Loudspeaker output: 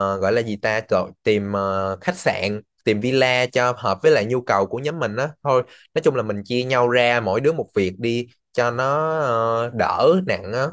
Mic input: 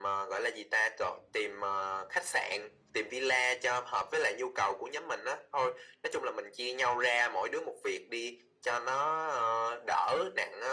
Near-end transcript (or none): none